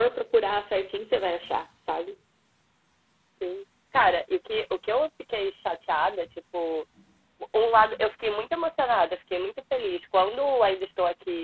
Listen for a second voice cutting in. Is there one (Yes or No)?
No